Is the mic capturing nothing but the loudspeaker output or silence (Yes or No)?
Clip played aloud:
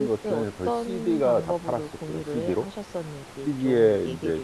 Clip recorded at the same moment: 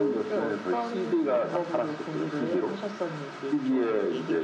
Yes